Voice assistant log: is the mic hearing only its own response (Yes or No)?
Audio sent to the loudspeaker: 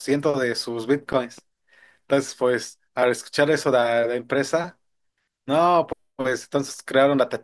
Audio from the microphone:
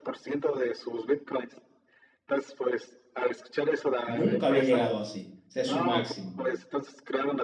No